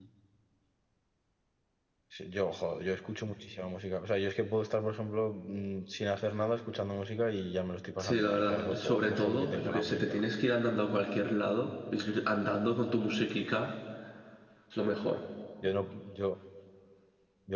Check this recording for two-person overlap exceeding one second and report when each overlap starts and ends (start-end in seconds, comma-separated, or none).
8.0-10.2